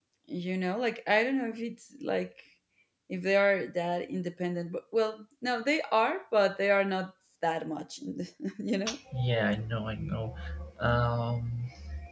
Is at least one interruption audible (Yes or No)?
No